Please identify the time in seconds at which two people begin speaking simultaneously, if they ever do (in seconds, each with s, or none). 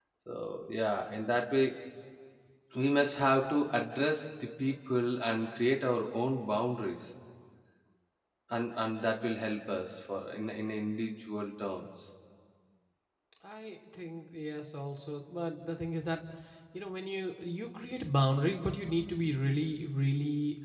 none